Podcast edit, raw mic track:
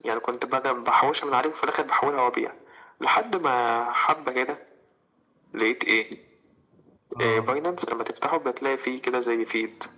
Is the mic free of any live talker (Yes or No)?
No